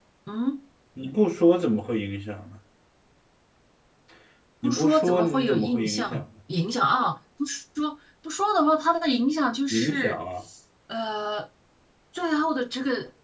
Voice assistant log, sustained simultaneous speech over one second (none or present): present